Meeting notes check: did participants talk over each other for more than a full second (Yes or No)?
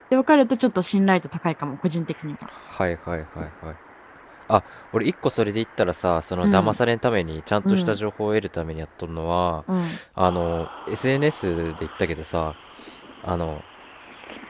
No